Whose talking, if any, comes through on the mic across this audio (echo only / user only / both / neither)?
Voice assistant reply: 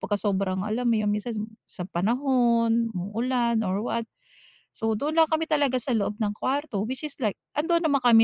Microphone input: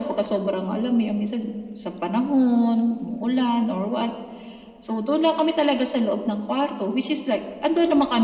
echo only